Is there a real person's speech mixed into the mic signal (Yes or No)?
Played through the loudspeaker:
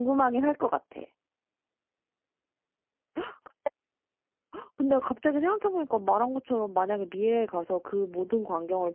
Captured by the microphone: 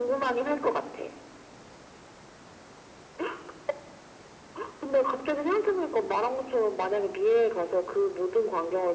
No